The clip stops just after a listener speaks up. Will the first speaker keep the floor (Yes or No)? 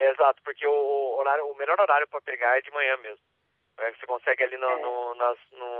Yes